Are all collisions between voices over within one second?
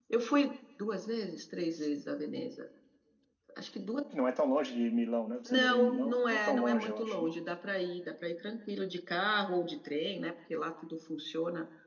No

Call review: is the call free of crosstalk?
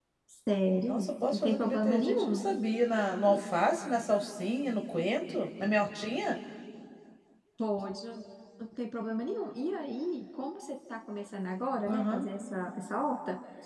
No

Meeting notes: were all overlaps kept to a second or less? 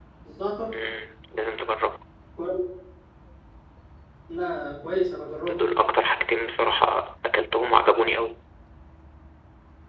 Yes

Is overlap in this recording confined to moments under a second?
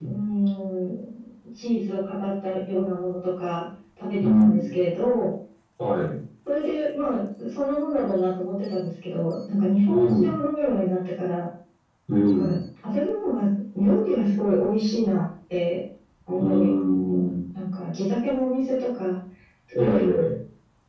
Yes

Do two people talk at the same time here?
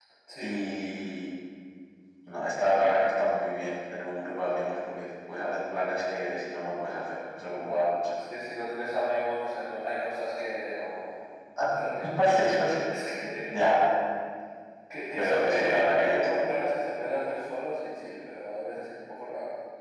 Yes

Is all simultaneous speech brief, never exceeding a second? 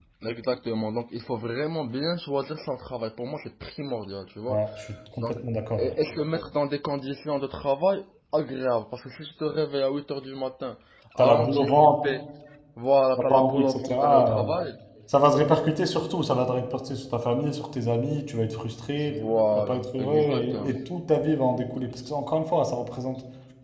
No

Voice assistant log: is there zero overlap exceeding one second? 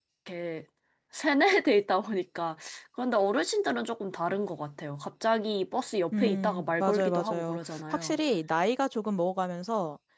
No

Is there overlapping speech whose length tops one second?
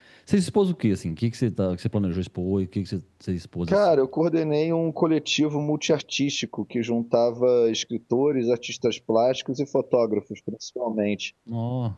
No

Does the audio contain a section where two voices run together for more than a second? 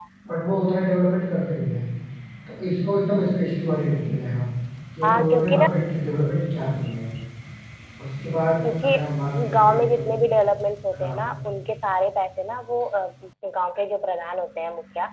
Yes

